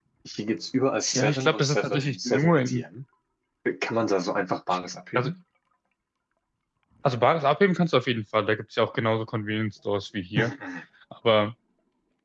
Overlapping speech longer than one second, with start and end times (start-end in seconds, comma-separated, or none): 1.1-2.8